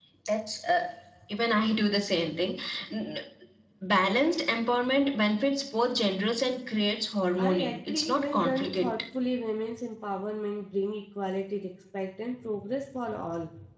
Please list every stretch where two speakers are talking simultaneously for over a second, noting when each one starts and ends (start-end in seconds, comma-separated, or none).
7.4-8.9